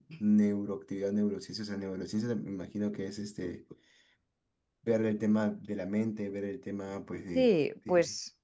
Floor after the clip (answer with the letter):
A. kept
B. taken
B